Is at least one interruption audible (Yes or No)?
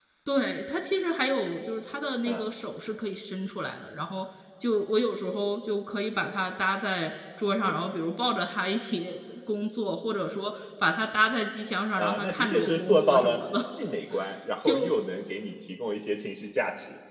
Yes